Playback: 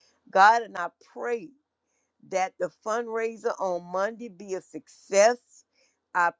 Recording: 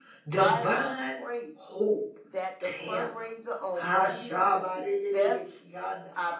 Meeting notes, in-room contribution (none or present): present